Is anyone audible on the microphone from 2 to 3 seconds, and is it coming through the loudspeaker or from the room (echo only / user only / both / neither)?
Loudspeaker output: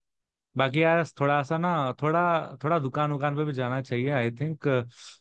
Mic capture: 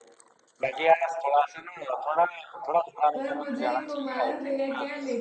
echo only